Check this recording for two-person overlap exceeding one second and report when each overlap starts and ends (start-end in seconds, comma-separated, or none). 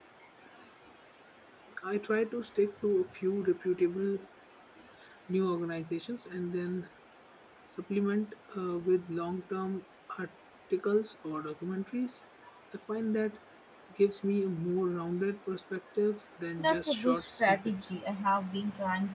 16.6-17.9